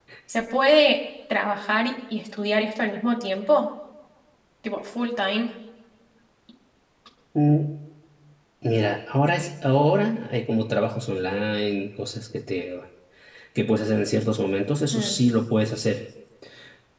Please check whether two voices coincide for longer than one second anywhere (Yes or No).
No